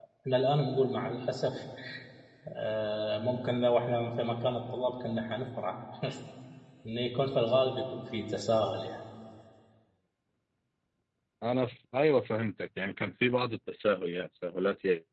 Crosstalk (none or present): none